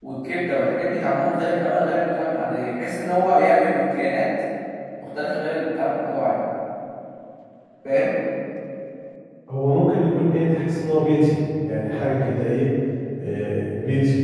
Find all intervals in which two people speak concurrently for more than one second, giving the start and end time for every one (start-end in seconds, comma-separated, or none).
none